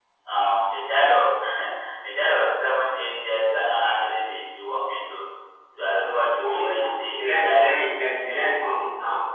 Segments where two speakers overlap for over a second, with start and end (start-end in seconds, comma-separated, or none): 6.4-7.7